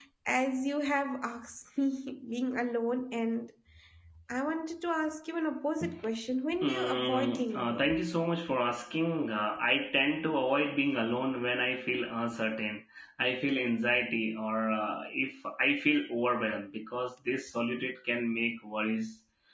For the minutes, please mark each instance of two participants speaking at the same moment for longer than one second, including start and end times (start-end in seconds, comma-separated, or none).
6.6-8.0